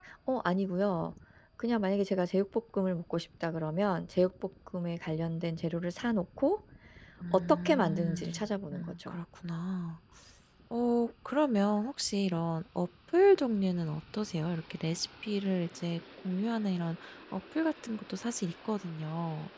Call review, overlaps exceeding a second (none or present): present